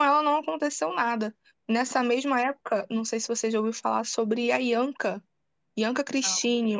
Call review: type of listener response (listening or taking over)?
listening